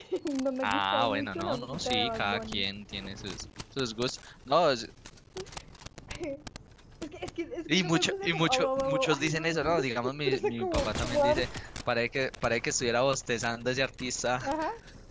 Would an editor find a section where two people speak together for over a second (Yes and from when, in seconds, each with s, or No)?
Yes, from 0.6 s